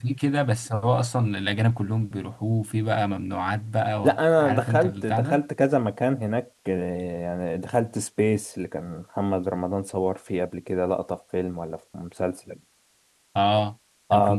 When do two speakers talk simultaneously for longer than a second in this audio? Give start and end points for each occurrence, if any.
4.0-5.4

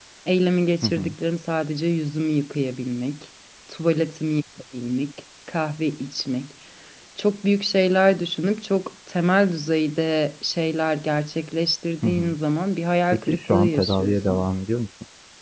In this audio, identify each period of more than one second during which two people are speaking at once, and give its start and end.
13.1-14.5

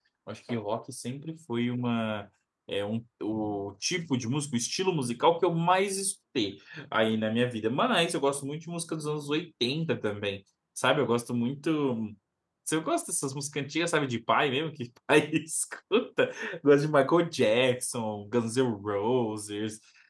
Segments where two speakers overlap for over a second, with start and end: none

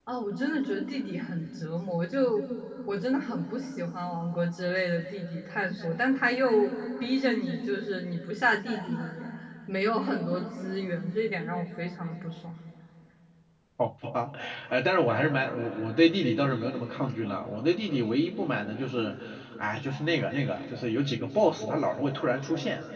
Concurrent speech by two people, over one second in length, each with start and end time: none

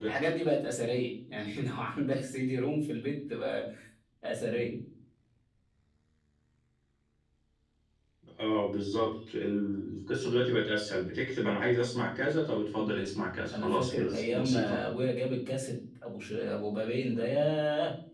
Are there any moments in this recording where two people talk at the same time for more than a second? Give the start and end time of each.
13.5-14.8

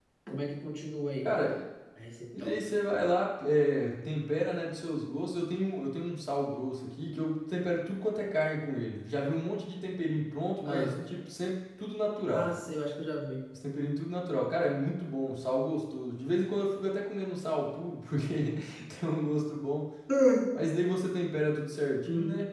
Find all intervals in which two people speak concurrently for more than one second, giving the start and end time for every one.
none

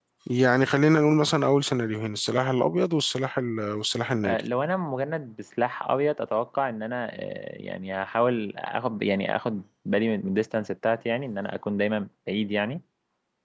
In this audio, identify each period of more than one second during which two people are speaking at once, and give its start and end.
none

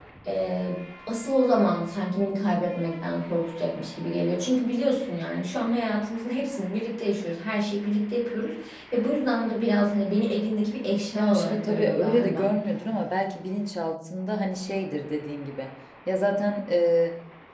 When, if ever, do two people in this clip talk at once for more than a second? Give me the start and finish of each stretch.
11.1-12.5

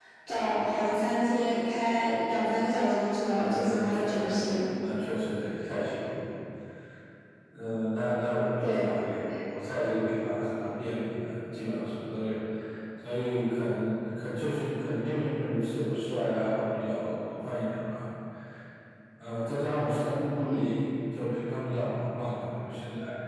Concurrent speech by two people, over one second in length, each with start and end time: 3.3-4.6

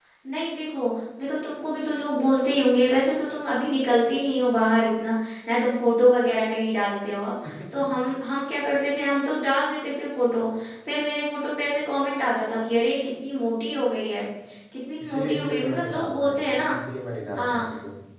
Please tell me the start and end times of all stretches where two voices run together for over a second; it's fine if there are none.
15.0-16.6

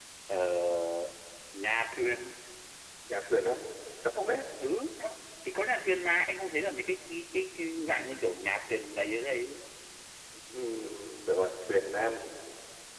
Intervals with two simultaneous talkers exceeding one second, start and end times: none

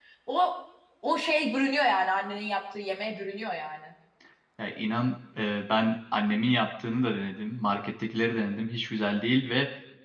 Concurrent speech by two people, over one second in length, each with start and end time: none

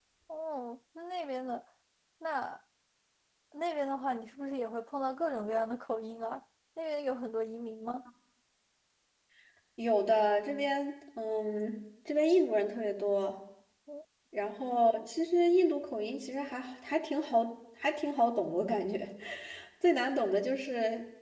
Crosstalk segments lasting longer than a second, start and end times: none

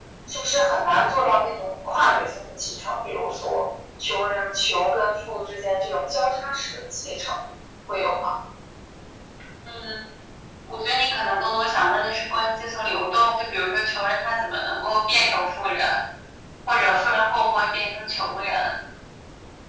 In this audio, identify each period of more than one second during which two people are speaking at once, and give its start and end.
none

